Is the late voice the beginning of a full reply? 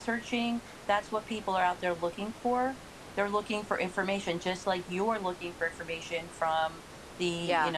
No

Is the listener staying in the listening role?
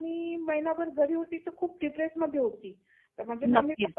Yes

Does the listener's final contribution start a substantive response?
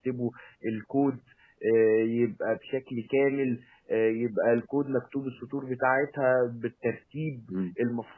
Yes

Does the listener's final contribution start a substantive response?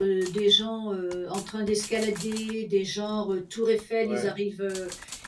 No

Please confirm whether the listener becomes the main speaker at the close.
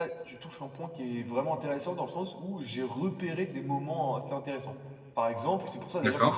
No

